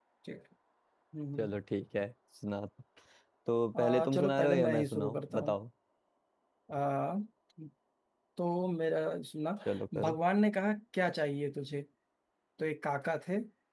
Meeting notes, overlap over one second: present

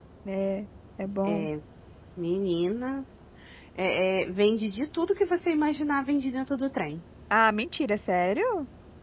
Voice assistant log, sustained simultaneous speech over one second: none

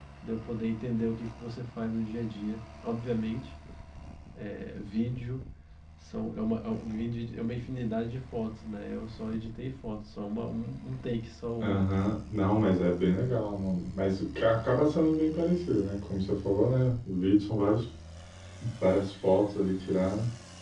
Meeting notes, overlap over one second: none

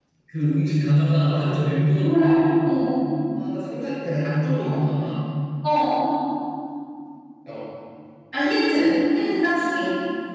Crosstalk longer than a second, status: none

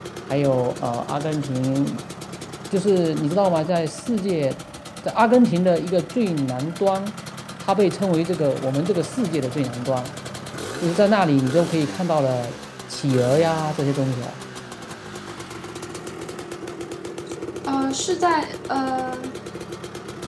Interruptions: none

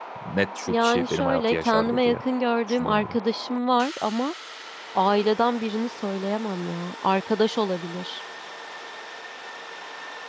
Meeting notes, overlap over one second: present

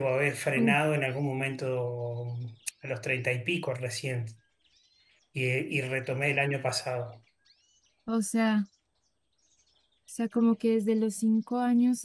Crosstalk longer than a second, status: none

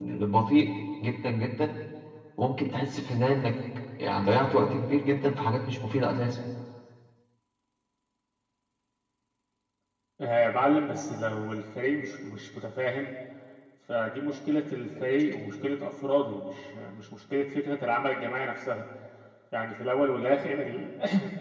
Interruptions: none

